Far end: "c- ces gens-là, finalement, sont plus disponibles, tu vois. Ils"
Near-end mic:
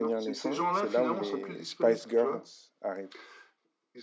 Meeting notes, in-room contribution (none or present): present